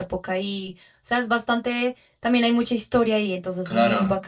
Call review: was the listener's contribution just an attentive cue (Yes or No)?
No